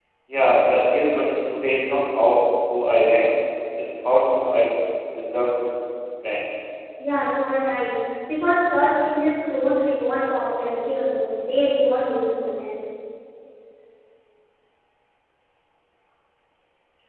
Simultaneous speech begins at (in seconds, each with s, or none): none